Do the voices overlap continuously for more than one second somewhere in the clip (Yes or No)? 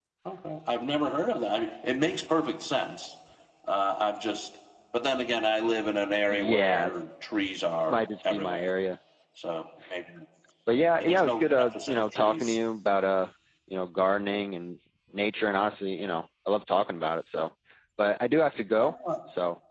Yes